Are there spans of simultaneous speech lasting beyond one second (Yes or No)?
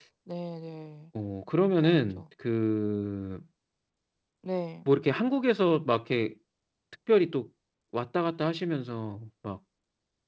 No